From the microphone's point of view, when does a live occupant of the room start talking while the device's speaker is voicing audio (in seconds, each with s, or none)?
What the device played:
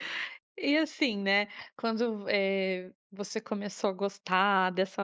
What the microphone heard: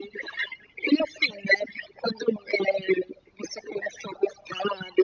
none